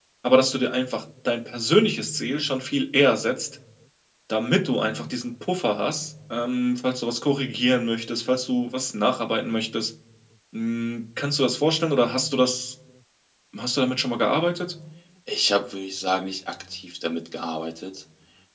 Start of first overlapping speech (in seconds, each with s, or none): none